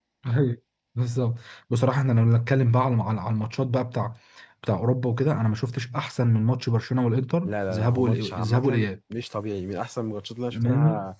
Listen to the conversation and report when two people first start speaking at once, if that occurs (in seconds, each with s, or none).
7.4 s